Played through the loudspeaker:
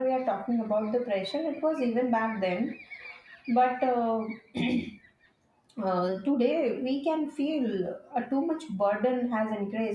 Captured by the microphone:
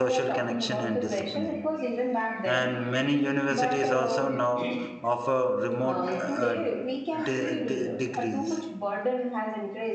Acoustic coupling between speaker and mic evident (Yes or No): Yes